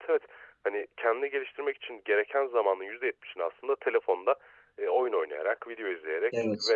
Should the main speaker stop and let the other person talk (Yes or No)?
No